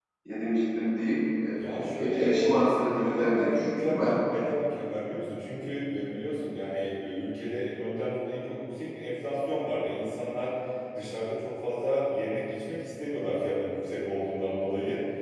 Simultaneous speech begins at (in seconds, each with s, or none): 1.6 s